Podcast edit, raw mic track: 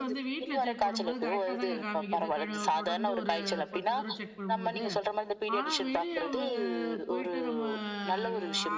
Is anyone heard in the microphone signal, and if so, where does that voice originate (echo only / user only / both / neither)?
both